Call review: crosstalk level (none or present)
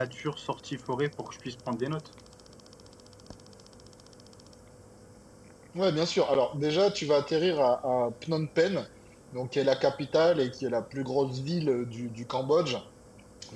none